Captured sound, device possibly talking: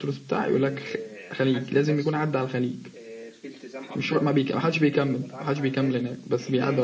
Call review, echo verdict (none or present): present